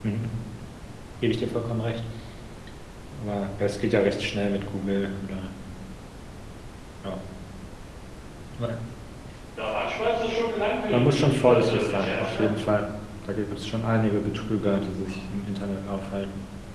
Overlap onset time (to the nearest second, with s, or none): 11 s